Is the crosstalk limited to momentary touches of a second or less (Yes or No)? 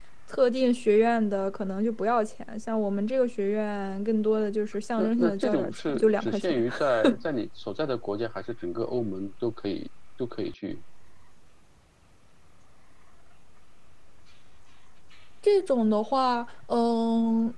No